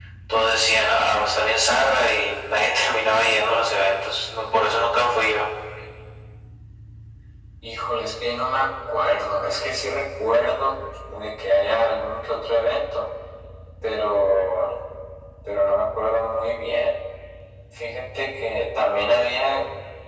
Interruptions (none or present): none